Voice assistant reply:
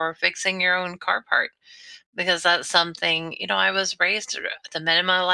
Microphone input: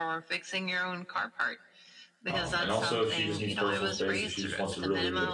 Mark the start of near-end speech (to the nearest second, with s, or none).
2 s